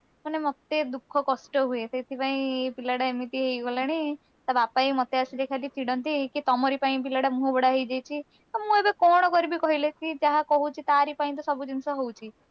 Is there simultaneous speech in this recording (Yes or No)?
No